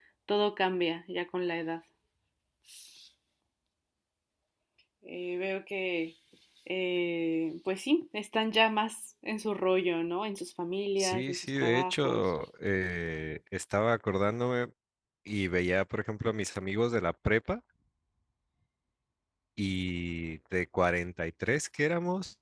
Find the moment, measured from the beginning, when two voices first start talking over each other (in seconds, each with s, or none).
11.0 s